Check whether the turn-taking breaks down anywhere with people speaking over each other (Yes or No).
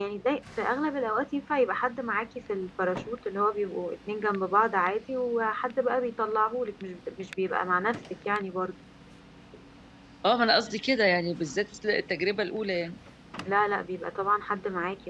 No